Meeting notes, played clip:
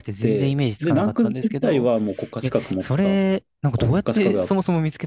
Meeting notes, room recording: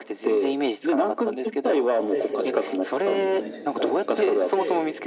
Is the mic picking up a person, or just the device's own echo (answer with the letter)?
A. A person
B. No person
A